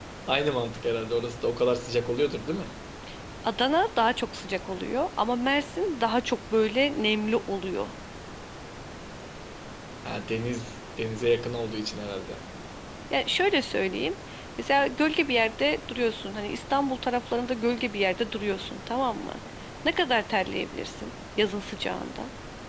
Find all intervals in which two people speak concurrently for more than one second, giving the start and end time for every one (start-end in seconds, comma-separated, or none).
none